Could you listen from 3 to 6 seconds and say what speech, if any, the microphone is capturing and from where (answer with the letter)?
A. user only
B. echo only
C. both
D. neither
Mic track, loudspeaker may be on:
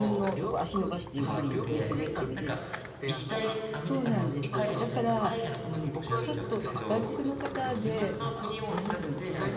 C